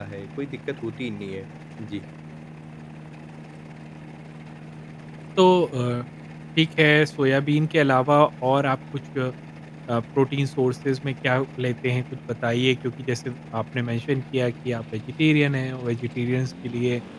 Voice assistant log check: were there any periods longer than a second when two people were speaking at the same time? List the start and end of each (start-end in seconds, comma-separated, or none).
none